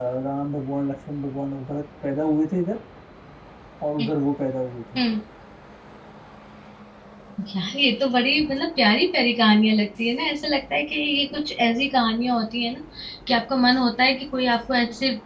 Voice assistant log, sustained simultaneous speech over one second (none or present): none